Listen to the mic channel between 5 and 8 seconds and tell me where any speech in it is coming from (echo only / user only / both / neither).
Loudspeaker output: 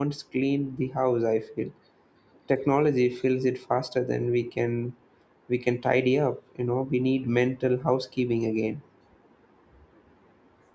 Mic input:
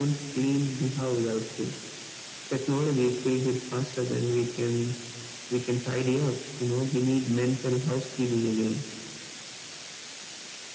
echo only